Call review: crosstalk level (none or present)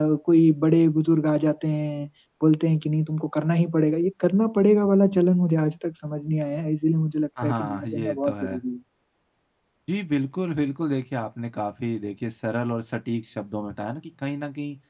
present